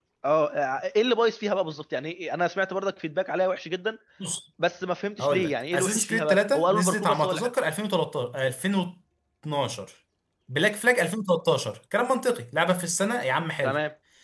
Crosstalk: present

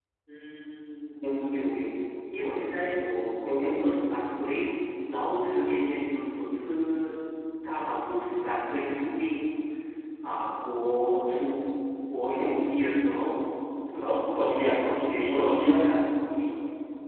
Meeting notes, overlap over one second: present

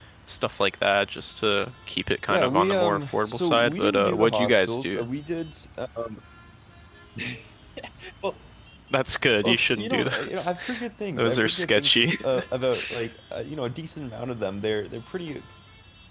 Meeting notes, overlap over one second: present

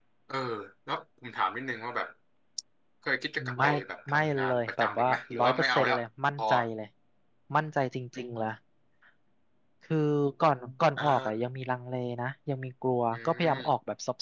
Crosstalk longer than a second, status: present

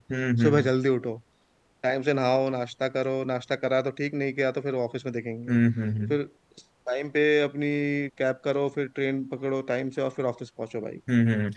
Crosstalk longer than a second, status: none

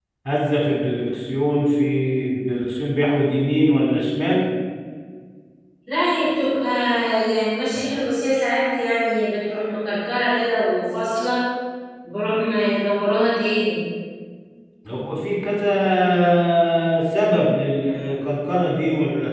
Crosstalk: none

